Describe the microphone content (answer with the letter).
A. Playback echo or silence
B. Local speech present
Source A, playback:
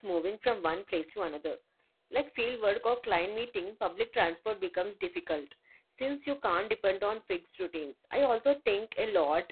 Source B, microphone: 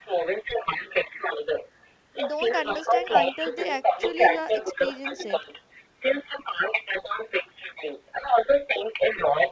B